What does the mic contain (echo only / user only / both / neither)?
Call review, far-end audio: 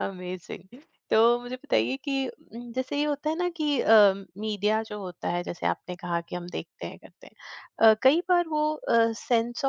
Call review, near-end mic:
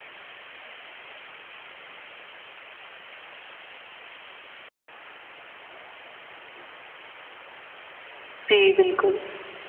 user only